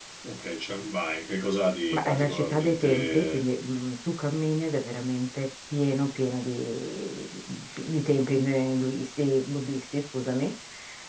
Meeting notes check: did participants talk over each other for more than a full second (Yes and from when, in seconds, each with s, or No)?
Yes, from 1.9 s